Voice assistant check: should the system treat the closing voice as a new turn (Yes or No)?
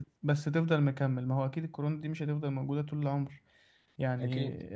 No